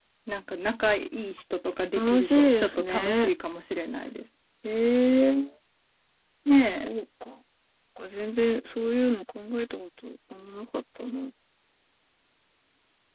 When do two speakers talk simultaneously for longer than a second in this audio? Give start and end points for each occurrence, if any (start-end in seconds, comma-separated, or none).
2.0-3.3